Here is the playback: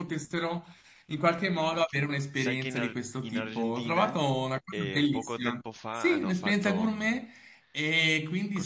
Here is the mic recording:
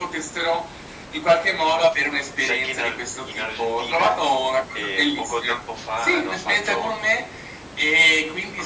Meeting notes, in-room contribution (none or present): none